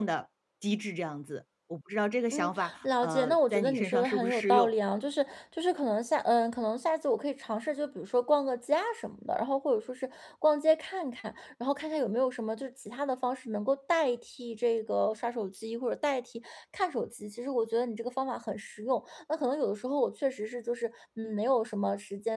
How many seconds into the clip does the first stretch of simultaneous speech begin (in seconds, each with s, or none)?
2.3 s